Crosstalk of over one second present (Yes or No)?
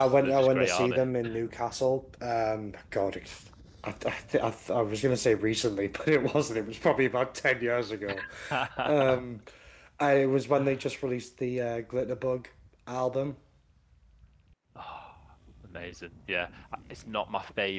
Yes